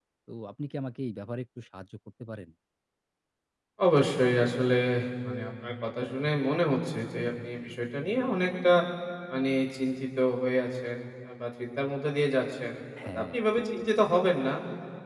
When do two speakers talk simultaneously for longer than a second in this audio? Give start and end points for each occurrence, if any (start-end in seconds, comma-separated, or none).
none